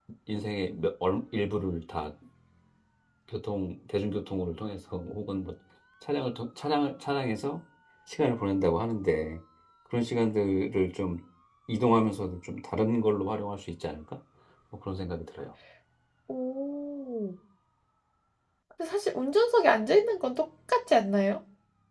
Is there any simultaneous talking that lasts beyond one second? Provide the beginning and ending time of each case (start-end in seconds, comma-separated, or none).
none